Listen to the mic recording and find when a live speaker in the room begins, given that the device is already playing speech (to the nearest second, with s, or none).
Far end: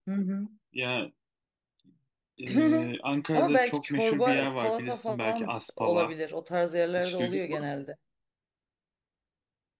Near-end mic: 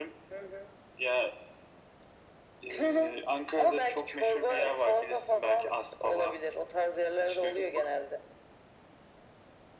none